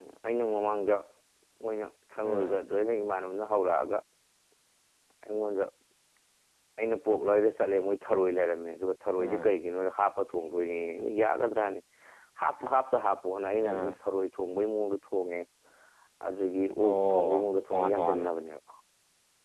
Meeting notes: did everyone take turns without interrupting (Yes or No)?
No